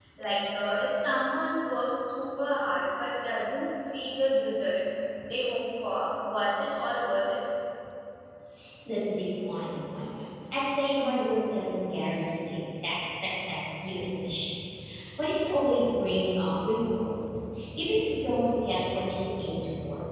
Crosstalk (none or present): none